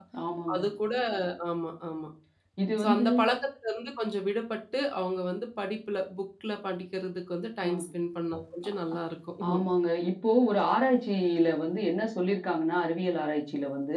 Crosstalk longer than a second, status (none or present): none